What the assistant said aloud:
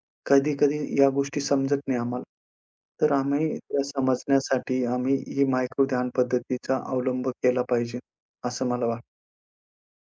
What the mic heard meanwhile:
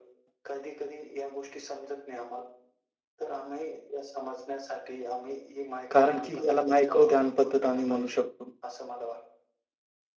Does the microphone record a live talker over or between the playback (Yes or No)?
Yes